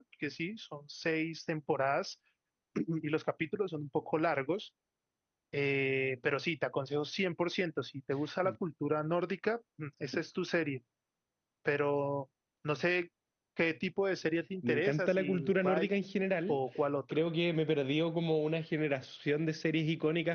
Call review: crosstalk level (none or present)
present